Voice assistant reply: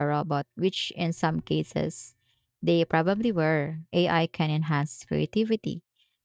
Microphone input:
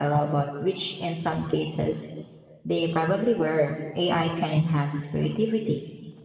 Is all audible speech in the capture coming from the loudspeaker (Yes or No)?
Yes